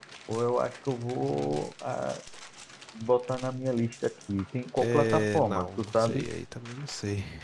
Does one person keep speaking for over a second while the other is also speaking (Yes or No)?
Yes